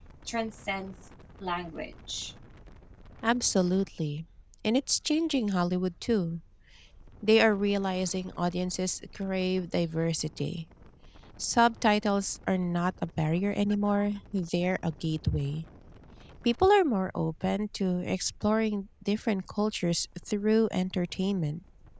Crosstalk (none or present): none